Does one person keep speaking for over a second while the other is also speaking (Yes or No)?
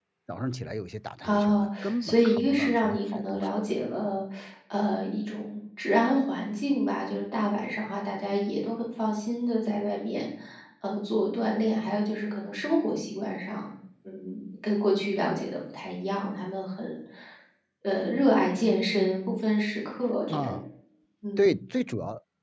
Yes